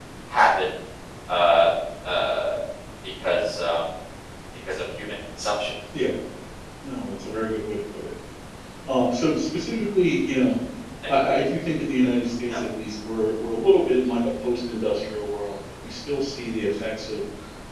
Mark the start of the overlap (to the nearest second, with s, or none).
none